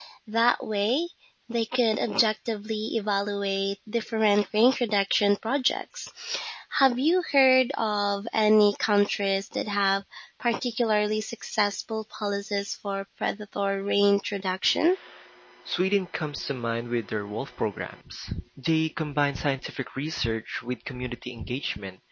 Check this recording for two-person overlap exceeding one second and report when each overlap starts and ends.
none

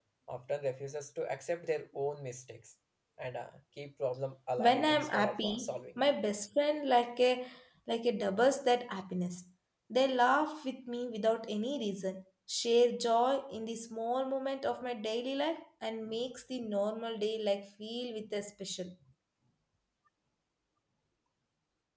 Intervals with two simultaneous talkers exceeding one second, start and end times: 4.6-6.2

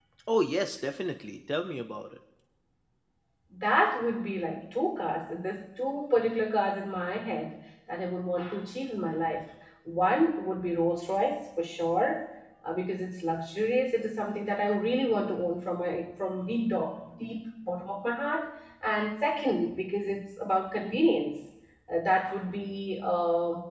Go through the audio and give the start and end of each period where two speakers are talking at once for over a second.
none

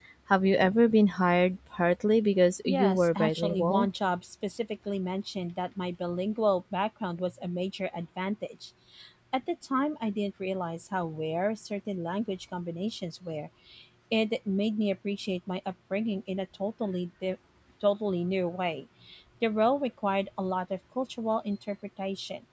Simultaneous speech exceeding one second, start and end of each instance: 2.7-3.9

